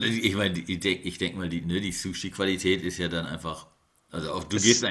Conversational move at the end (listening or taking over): listening